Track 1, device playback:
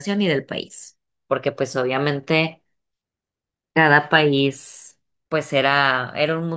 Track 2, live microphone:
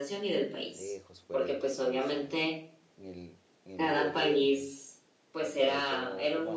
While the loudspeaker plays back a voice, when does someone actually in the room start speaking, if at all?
0.7 s

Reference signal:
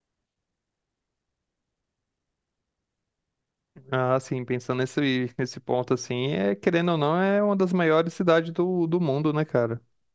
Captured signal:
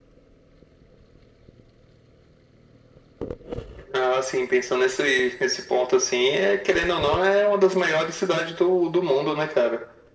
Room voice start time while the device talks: none

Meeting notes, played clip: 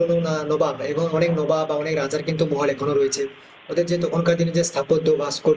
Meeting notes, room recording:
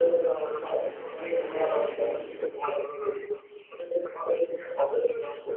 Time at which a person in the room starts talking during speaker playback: none

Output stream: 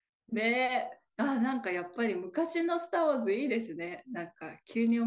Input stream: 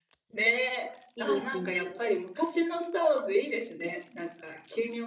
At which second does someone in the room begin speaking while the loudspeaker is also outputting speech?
1.2 s

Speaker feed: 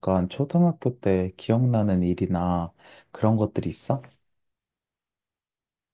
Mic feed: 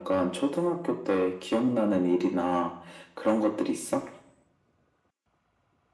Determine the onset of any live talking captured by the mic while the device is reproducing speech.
none

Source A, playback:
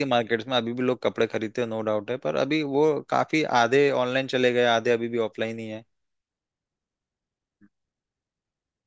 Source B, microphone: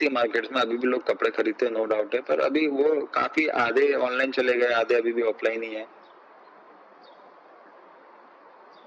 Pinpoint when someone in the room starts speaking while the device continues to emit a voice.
none

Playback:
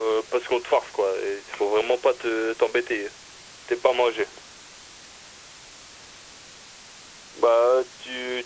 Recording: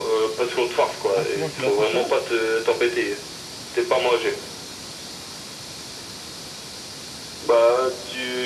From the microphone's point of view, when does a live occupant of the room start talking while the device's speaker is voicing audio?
1.1 s

